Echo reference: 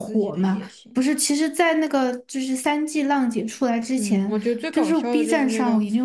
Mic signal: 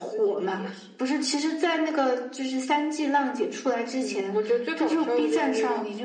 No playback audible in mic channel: No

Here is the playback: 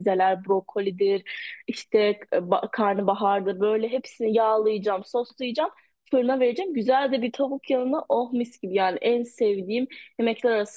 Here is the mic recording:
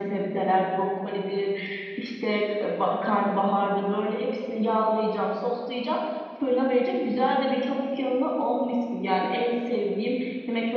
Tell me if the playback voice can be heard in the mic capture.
Yes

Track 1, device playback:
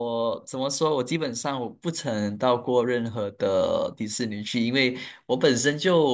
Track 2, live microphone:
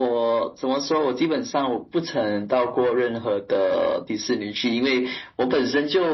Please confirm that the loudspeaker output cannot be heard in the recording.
No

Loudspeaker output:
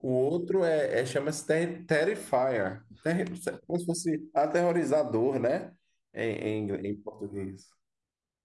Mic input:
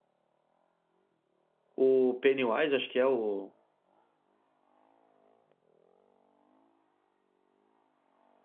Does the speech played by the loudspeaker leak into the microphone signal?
No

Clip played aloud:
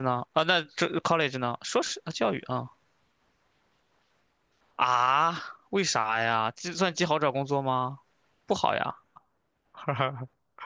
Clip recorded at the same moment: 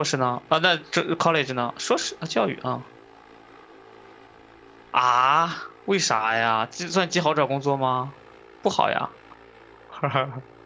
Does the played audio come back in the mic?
Yes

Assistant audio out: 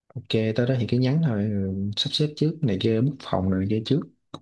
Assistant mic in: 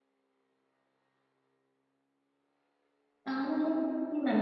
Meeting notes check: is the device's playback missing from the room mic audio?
Yes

